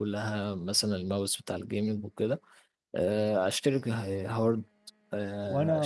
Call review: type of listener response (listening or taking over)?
taking over